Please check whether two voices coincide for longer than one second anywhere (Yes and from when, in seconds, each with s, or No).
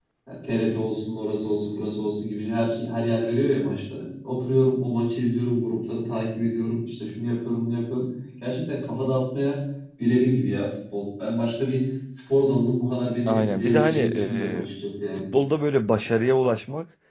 Yes, from 13.3 s